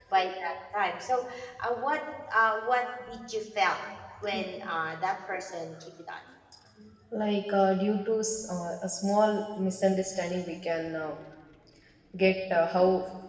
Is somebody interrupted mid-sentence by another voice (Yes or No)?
No